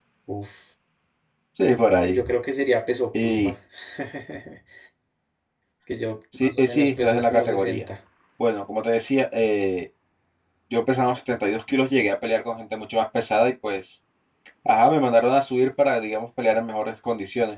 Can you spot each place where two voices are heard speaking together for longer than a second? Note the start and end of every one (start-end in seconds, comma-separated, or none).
6.4-7.8